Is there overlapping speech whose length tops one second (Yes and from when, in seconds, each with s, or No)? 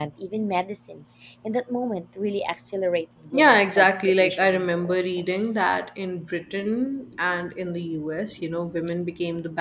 Yes, from 3.3 s